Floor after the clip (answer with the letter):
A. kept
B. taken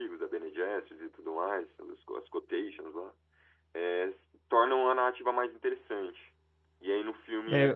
A